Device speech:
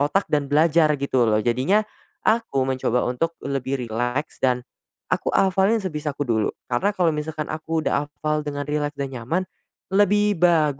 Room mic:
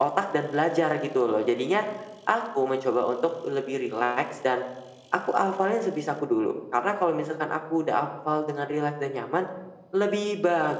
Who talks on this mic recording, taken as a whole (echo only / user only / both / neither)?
echo only